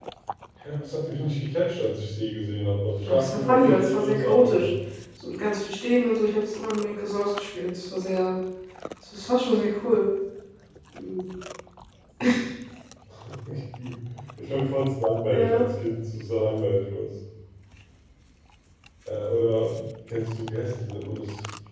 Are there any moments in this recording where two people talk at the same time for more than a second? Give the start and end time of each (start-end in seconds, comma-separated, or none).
3.0-4.7